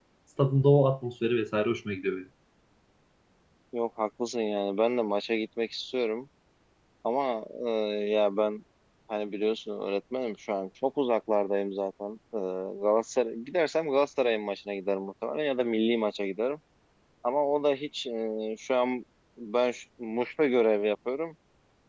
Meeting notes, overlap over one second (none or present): none